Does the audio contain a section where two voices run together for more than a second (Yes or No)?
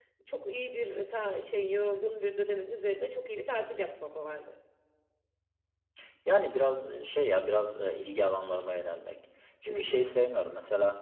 No